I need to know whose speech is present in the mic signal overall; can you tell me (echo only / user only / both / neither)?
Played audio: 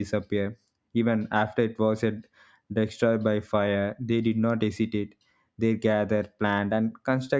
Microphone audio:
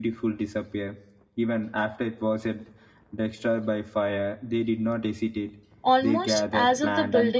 both